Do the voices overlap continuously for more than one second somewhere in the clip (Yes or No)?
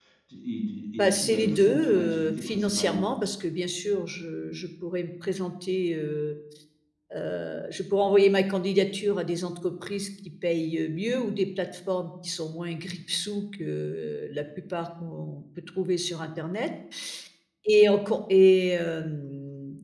Yes